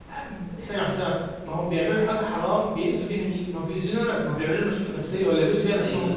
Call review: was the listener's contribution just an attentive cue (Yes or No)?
No